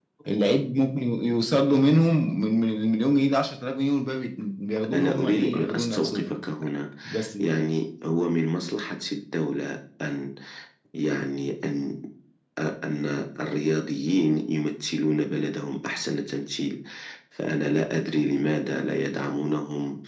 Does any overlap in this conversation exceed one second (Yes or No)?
Yes